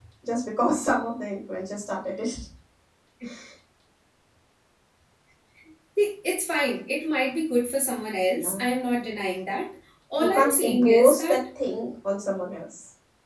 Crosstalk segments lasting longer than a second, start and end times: 10.2-11.4

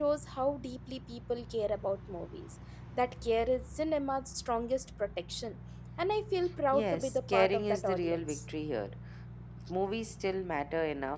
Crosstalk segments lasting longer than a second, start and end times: 6.7-8.4

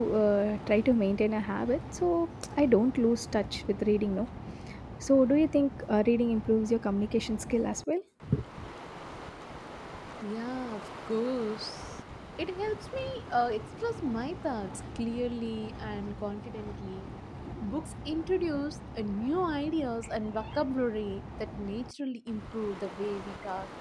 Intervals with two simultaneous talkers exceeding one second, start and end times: none

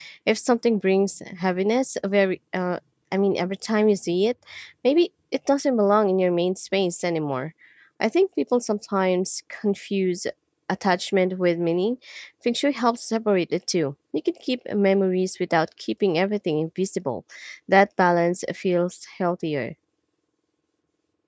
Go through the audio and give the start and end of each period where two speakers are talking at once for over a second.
none

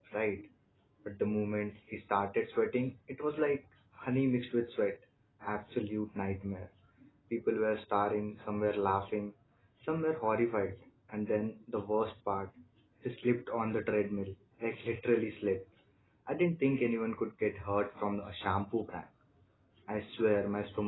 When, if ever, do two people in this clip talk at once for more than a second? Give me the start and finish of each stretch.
none

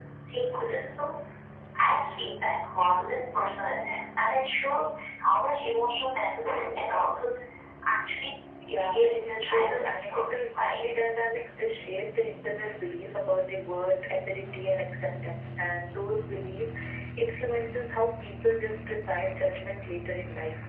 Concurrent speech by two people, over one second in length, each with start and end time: 8.8-10.8

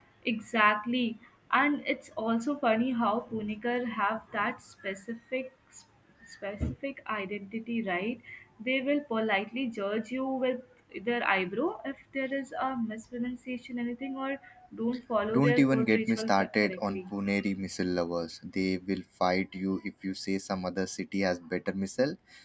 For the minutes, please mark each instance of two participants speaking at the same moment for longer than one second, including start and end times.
15.3-17.0

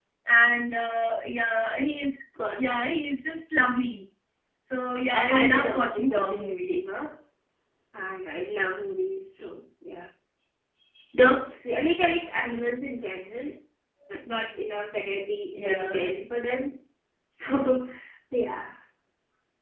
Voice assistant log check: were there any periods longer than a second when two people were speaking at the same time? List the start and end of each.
5.1-6.8

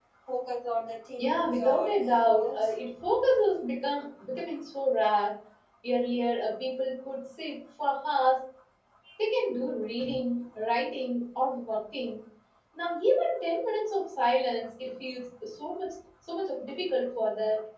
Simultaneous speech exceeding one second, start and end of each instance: 1.2-2.7

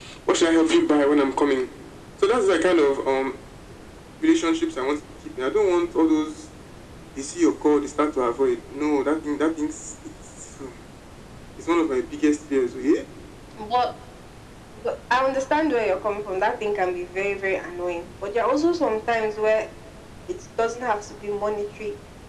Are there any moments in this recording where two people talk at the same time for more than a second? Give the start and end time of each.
none

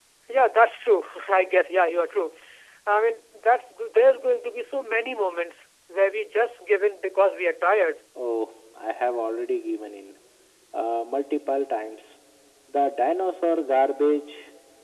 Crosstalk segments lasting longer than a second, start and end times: none

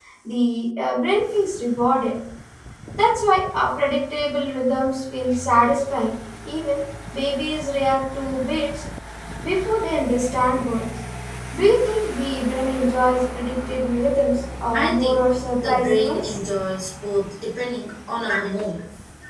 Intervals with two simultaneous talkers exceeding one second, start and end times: 14.7-16.4

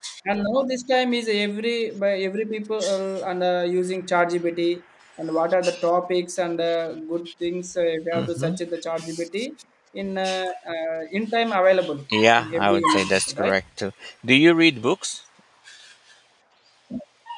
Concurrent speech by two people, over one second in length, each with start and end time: 12.4-13.6

